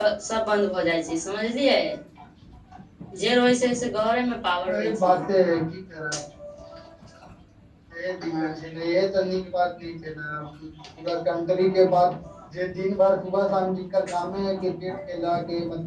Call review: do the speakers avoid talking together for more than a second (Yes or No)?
Yes